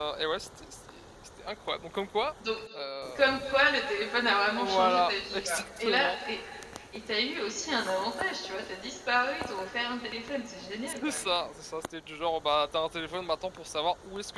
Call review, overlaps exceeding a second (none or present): present